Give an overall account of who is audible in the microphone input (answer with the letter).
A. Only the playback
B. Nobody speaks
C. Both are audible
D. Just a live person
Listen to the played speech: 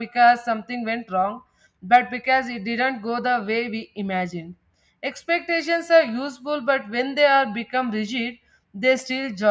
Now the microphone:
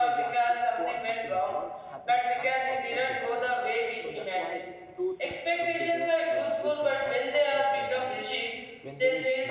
C